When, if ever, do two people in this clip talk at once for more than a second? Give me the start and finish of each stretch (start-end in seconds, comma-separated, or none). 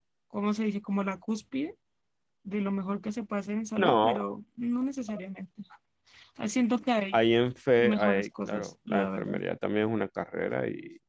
7.8-9.4